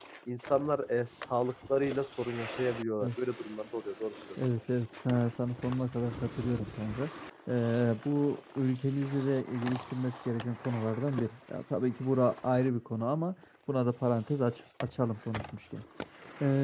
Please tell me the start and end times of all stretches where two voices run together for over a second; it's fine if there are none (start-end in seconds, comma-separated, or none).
none